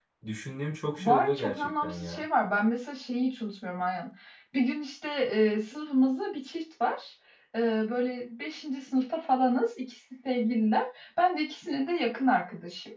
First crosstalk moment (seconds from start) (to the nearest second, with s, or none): 1 s